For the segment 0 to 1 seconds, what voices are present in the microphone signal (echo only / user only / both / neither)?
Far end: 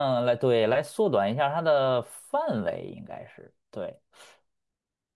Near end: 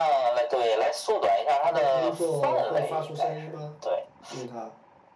echo only